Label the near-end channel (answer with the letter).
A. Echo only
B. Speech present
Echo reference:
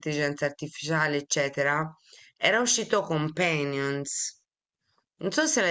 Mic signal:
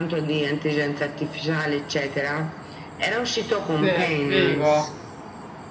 B